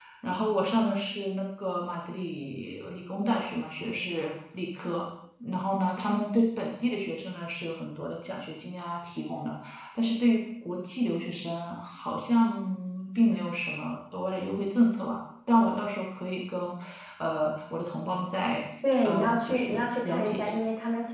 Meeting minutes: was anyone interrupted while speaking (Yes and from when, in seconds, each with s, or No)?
Yes, from 19.0 s